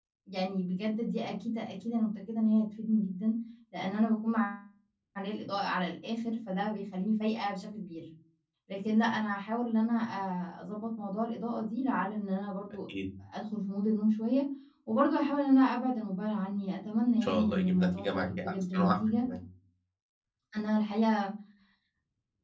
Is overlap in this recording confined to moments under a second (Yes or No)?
No